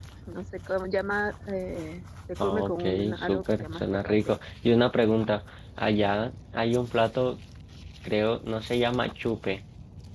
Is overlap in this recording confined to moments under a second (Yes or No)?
No